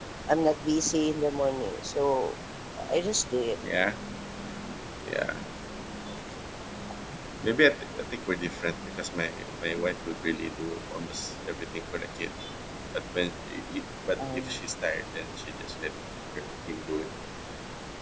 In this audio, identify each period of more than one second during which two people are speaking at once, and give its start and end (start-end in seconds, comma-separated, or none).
none